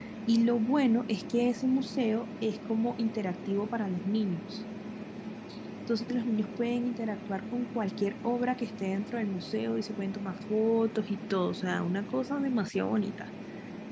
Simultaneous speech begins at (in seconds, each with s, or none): none